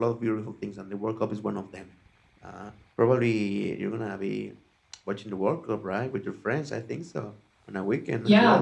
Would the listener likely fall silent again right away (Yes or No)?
No